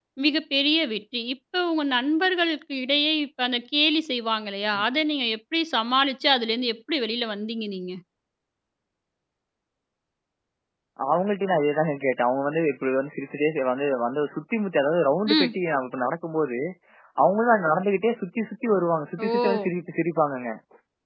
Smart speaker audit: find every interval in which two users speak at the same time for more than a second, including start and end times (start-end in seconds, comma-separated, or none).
none